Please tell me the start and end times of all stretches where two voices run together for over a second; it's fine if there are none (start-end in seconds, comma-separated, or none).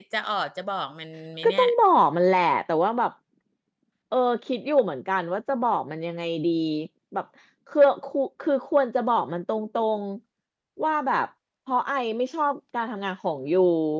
none